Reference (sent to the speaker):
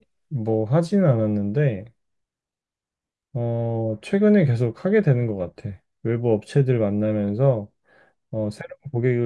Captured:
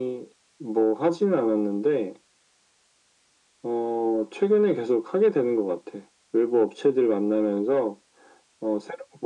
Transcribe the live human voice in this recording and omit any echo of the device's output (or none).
none